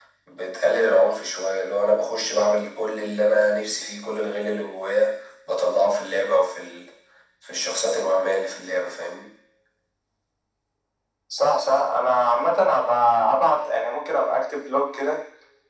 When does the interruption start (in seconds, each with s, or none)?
none